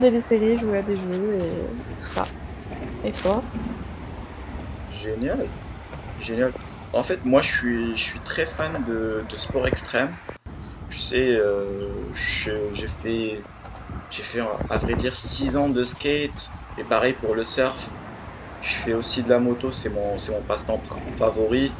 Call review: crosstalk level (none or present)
none